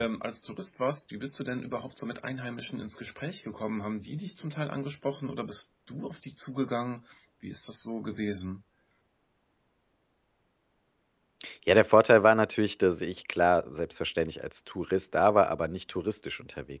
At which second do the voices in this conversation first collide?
none

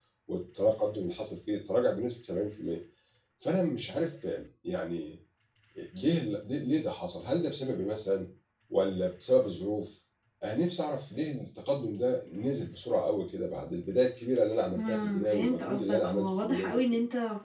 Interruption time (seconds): 14.8 s

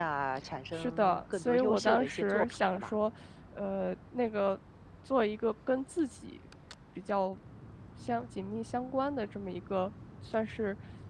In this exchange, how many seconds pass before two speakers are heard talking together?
0.7 s

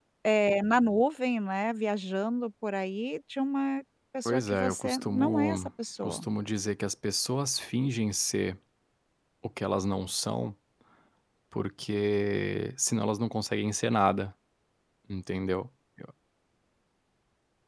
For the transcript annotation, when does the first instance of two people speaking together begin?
4.2 s

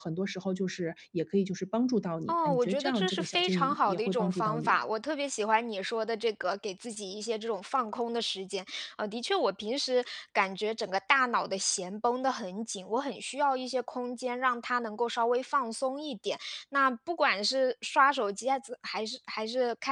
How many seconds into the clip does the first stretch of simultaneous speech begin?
2.3 s

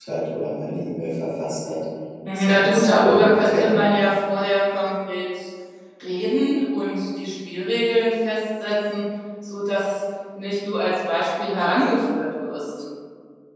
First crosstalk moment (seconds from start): 2.4 s

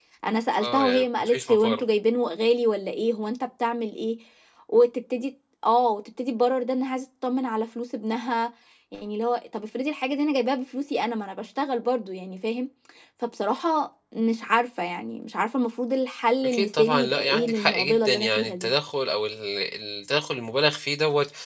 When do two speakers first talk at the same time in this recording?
0.6 s

